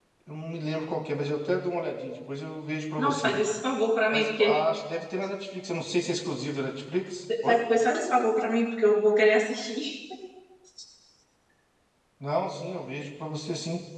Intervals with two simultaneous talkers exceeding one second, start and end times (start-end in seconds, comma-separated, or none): none